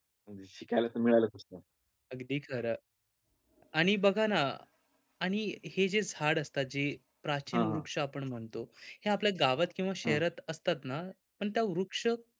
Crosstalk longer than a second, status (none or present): none